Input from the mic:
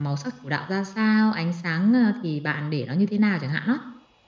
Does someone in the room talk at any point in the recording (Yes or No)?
Yes